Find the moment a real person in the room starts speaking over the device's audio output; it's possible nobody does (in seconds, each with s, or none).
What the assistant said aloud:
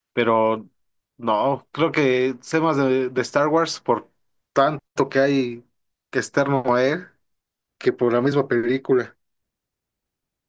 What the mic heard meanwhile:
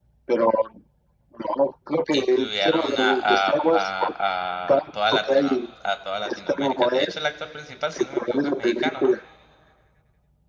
2.1 s